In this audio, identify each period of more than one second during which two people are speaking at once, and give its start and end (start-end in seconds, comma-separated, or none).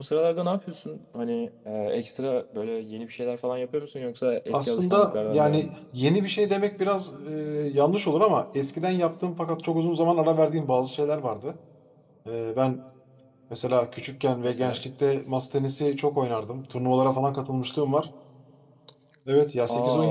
4.5-5.7